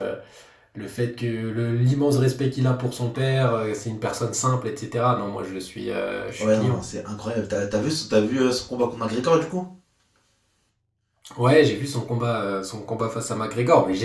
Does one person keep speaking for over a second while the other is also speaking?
No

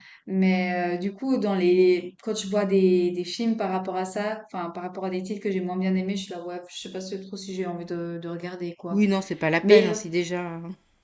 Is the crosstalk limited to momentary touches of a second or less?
Yes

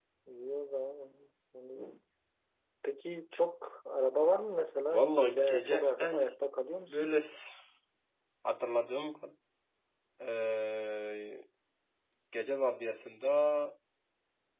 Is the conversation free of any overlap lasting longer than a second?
No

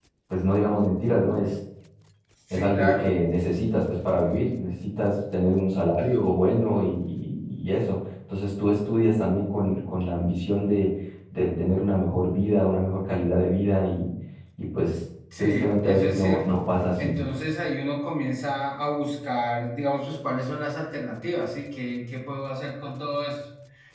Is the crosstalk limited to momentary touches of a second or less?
No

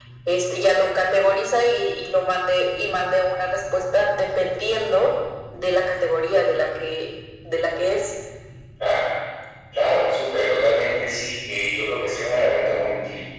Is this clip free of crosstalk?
Yes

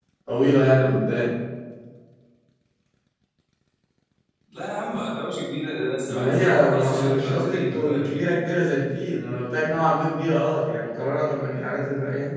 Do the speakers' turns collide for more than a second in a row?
Yes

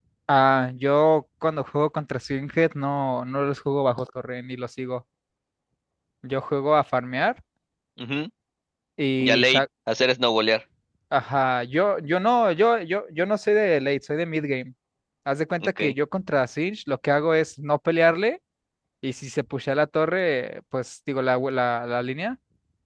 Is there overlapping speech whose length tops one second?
No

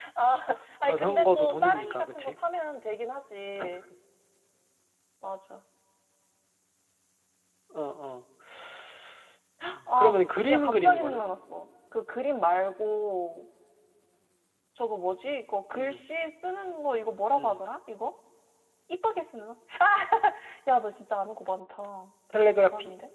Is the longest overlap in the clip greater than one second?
Yes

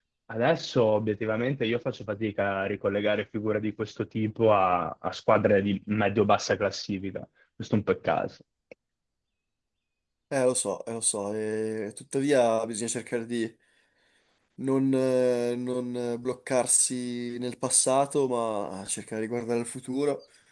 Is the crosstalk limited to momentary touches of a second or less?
Yes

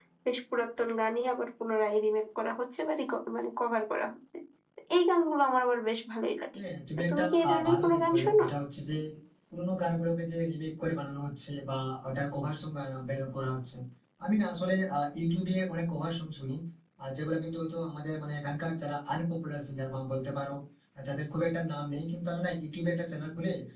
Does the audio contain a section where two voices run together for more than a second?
Yes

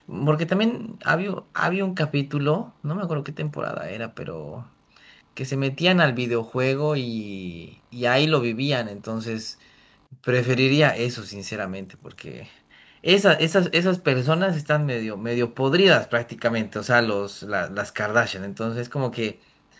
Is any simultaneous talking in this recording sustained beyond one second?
No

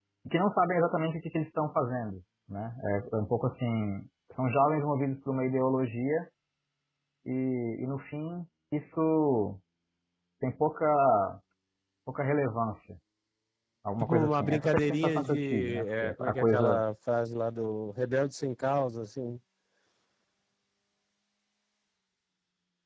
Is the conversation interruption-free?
No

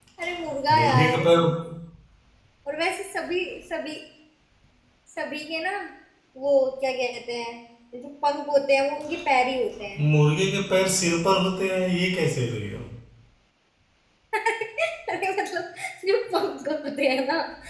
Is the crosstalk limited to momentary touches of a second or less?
Yes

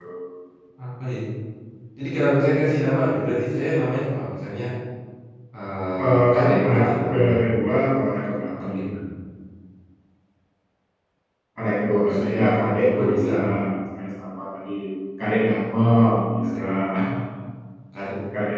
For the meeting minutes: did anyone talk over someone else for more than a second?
Yes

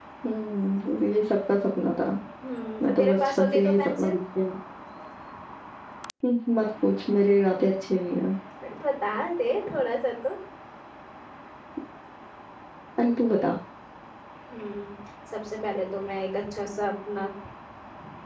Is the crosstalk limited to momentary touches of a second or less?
No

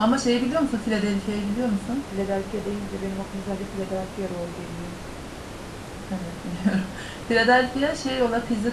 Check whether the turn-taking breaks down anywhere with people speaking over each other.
No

